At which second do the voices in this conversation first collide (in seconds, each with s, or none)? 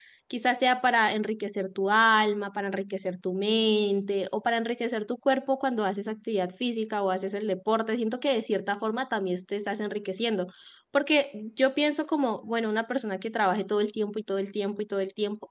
none